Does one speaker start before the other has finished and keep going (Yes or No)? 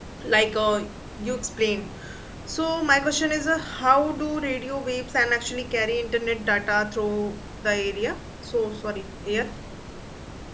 No